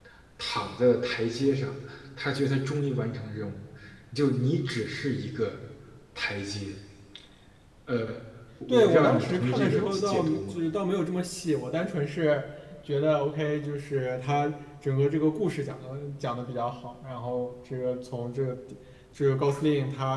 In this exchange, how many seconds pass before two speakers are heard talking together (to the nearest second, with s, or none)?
9 s